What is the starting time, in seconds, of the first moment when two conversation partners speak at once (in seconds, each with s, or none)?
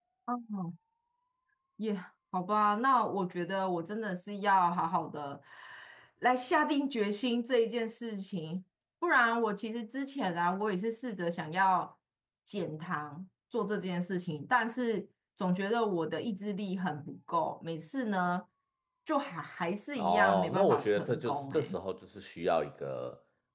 20.0 s